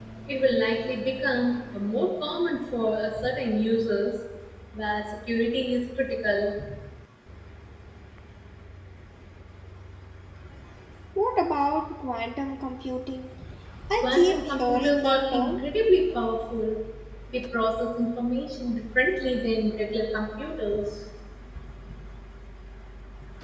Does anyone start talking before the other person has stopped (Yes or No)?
Yes